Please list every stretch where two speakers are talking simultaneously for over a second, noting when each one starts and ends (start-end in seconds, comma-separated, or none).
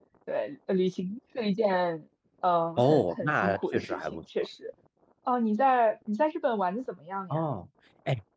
2.8-4.2